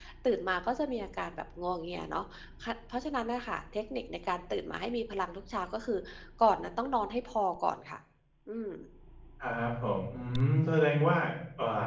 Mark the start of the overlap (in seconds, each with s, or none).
none